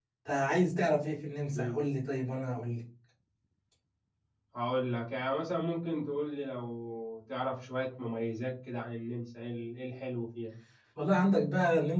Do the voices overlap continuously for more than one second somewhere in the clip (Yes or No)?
No